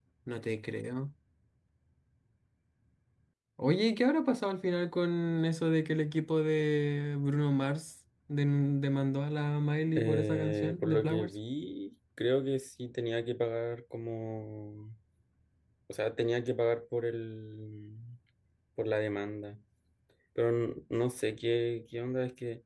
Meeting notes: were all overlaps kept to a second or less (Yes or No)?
No